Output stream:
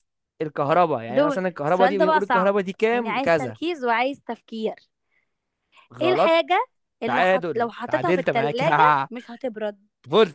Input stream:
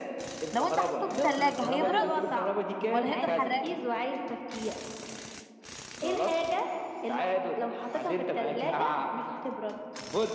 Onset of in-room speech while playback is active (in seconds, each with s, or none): 0.5 s